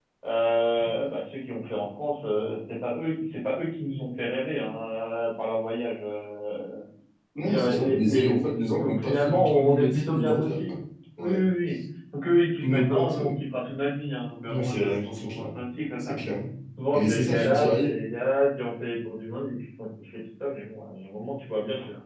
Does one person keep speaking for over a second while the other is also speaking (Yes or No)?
Yes